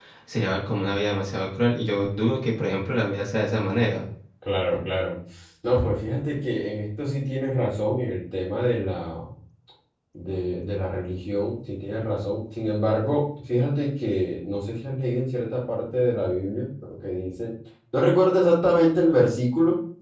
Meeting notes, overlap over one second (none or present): none